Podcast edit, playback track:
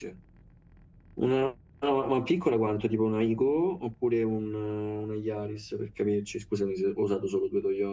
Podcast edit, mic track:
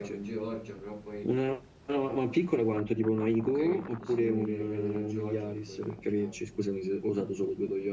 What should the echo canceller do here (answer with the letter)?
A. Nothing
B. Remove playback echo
B